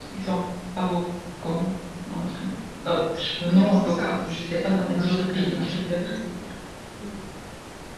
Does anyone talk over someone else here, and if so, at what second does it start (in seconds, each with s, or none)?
3.4 s